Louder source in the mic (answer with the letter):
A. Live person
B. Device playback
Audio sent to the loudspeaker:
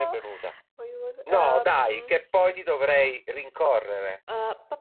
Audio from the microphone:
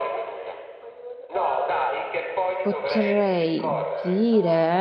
A